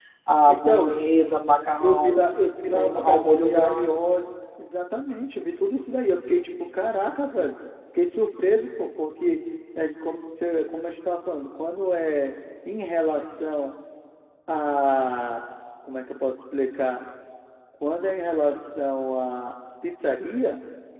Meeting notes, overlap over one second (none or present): present